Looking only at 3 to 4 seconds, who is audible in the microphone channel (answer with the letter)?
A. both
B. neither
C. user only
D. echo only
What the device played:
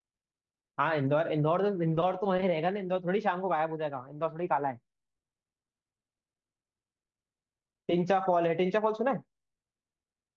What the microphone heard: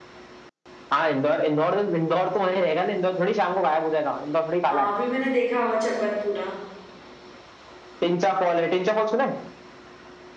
D